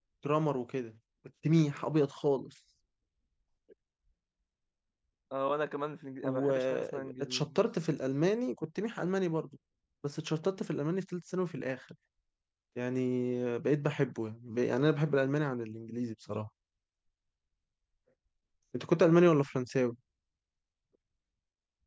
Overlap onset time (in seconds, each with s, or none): 6.2 s